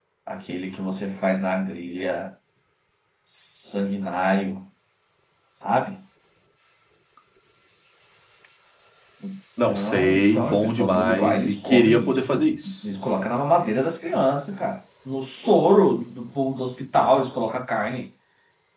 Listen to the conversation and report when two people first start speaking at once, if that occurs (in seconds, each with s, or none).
9.7 s